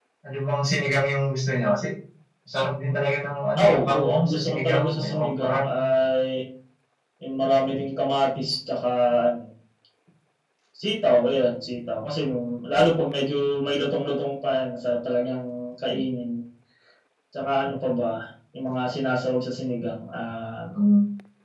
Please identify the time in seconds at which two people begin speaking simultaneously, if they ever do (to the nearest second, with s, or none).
4 s